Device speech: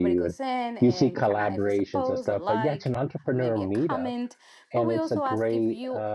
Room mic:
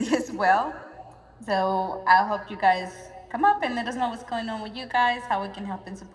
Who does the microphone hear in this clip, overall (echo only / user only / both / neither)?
user only